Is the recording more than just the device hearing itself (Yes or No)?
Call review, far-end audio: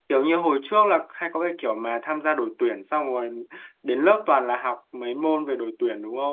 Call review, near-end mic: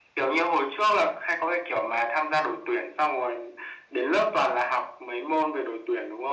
No